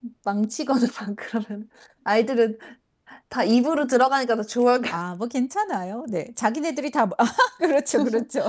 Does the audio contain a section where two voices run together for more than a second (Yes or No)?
No